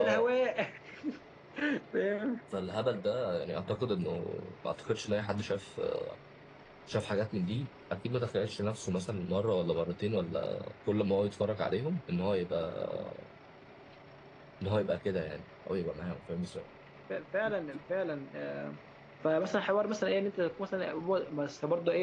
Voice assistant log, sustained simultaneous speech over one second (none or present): none